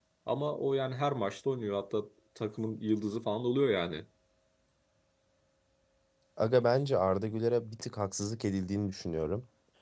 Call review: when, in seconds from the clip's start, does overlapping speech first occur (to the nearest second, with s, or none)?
none